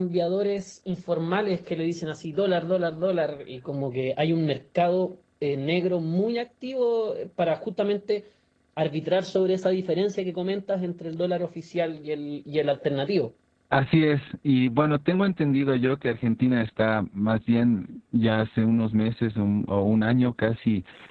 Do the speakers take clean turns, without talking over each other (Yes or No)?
Yes